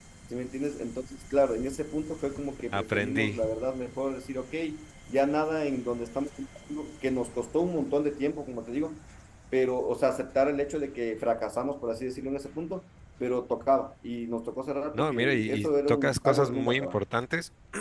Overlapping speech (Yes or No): Yes